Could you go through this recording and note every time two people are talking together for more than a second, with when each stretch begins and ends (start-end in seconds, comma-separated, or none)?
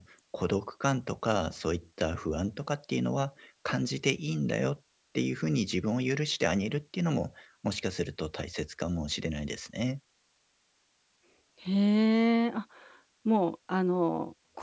none